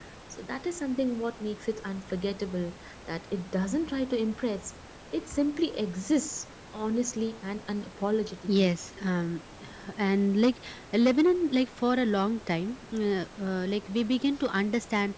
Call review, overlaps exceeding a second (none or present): none